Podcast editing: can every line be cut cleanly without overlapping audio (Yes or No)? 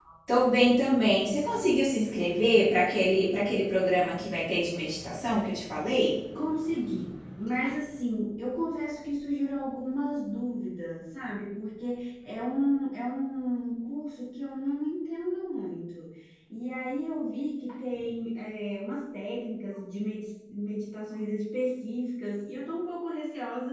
Yes